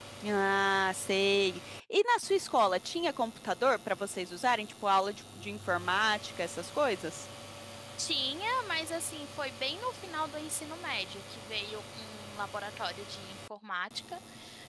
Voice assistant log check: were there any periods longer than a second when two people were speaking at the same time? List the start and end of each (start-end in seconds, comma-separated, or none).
none